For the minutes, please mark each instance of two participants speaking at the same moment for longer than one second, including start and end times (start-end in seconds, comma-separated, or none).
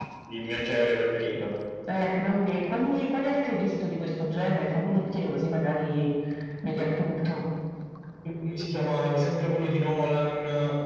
none